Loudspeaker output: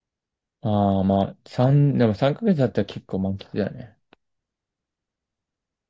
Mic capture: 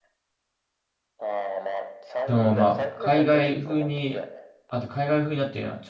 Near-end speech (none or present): present